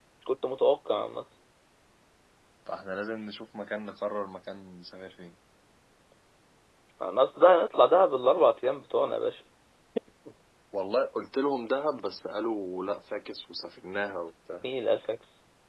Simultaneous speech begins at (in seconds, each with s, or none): none